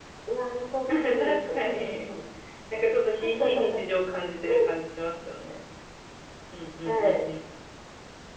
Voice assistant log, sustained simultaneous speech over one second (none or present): present